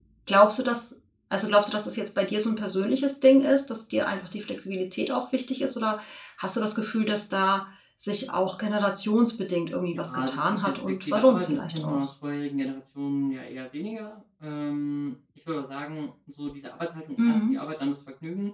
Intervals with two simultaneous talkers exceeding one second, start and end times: 9.9-12.1

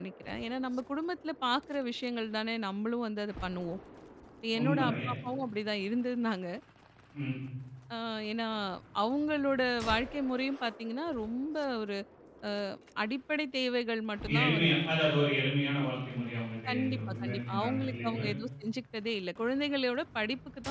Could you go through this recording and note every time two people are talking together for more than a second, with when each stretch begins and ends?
16.7-18.3

